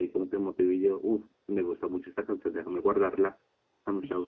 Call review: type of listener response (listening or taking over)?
taking over